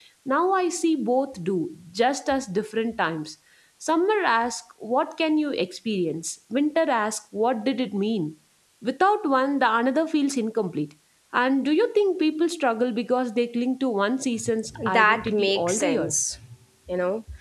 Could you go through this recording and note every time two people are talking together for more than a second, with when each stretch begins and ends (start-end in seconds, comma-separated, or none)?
14.9-16.1